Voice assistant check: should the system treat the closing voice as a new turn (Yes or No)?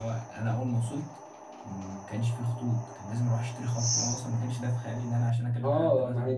Yes